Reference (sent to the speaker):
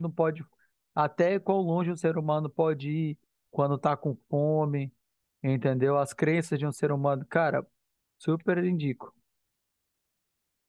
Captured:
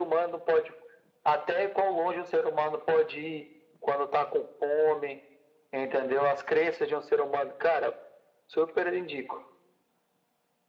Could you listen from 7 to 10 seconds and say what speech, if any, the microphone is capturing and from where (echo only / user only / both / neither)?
echo only